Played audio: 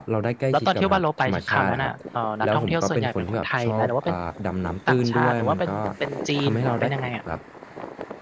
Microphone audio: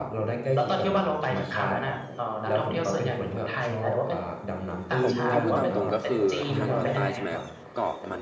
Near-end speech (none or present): present